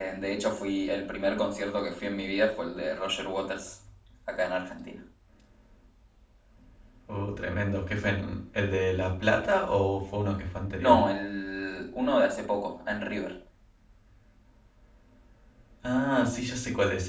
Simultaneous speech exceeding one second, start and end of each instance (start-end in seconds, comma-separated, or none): none